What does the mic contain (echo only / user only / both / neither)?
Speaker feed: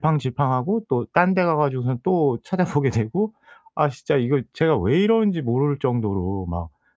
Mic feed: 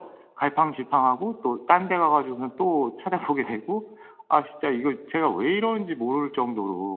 echo only